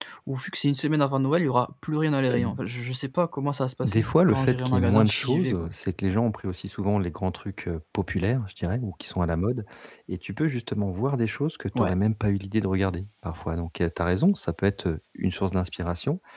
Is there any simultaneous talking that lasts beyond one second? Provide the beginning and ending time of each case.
3.8-5.7

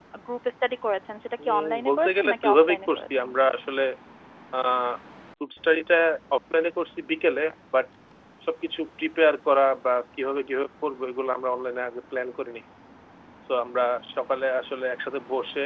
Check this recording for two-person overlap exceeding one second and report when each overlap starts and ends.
1.5-3.3

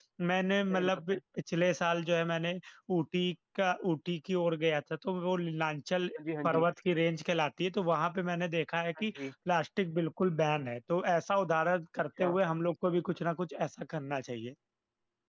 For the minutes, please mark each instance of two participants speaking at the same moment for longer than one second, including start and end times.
none

